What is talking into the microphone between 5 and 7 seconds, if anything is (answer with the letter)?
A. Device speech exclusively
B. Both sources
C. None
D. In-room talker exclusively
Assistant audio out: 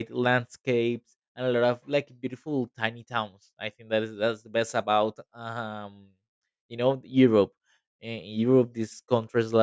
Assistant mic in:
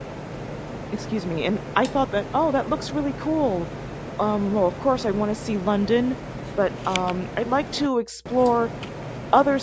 D